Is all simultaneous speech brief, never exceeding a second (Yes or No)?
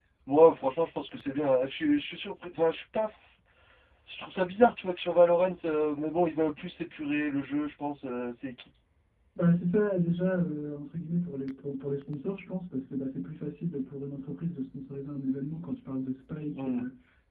Yes